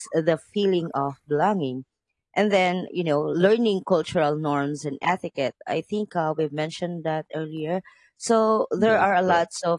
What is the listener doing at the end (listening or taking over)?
listening